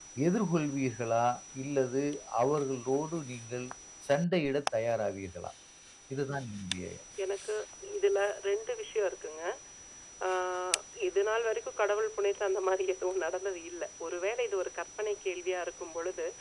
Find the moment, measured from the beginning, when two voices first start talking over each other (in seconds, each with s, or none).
none